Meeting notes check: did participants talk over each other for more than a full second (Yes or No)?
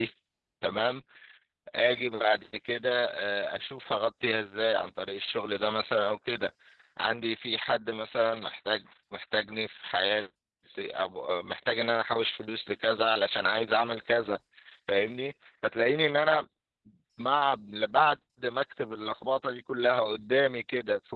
No